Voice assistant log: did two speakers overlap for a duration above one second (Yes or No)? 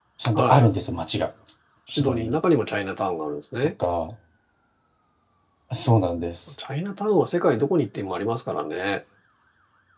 No